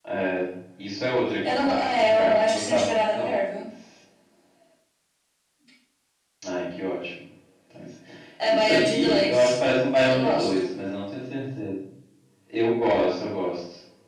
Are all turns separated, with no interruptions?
No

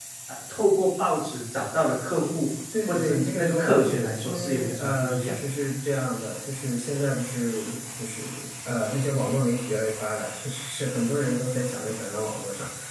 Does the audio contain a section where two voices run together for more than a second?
Yes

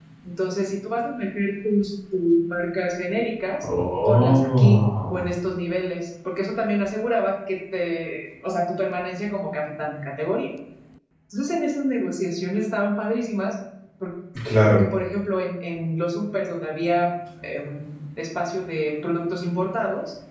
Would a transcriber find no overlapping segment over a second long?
No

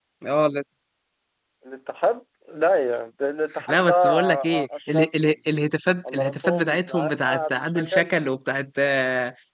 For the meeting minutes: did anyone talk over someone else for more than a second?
Yes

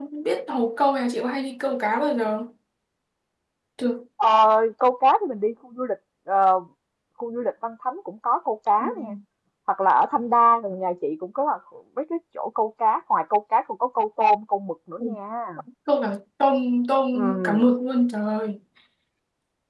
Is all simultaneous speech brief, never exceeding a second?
Yes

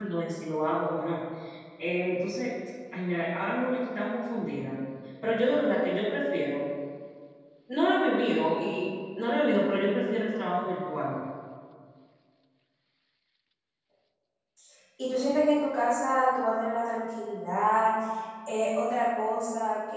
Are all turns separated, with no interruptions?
Yes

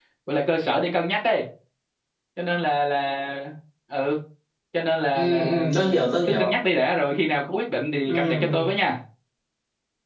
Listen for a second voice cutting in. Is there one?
Yes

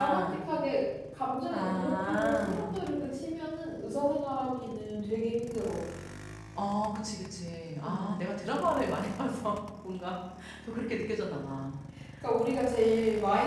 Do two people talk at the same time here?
Yes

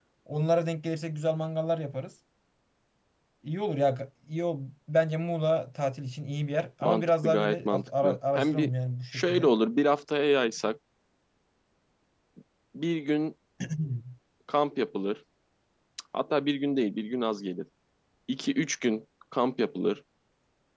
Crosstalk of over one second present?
Yes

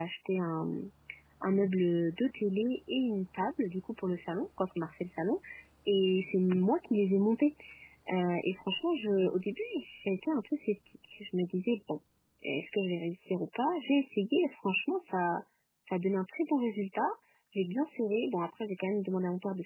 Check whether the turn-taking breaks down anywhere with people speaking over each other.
No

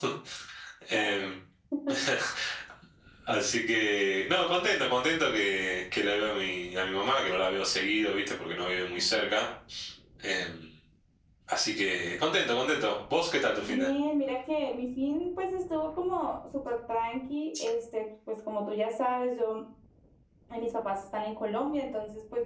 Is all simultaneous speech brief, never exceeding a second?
Yes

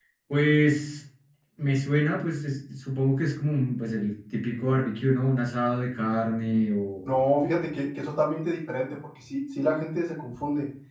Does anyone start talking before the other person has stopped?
No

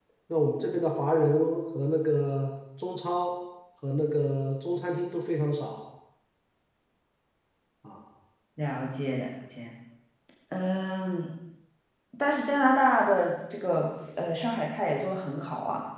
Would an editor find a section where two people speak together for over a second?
No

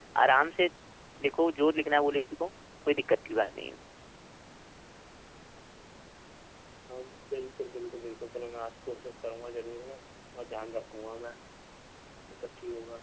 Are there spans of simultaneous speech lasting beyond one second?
No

